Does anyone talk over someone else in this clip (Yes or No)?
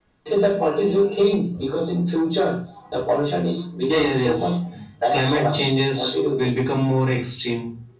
Yes